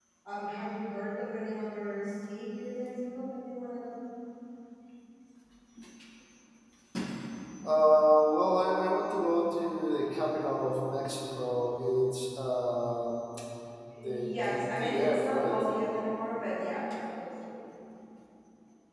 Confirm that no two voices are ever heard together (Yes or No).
No